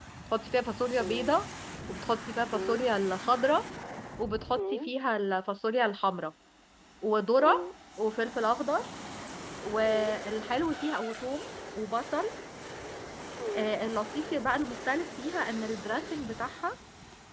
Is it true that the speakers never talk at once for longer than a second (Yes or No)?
Yes